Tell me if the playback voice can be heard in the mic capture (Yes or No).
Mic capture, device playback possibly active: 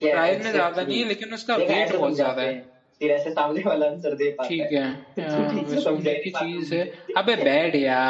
Yes